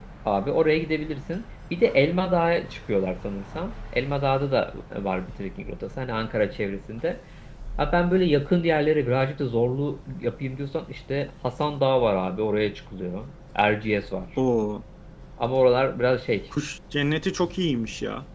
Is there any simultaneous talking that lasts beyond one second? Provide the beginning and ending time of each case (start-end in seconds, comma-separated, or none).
none